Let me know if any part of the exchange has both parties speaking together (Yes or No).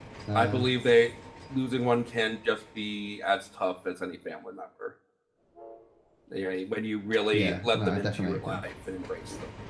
Yes